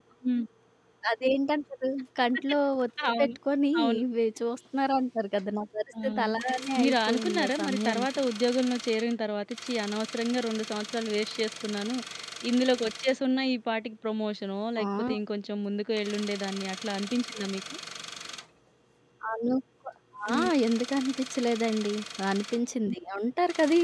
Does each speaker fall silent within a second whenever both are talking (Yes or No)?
No